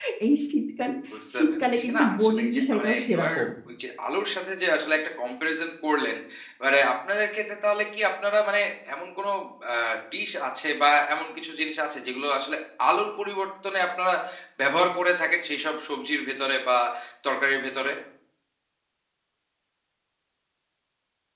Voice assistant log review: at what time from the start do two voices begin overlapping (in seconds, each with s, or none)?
1.4 s